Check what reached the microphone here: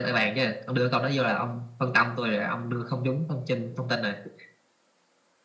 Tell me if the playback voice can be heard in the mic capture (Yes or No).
Yes